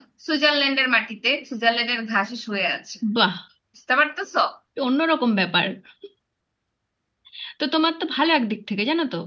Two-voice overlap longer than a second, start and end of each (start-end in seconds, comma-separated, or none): none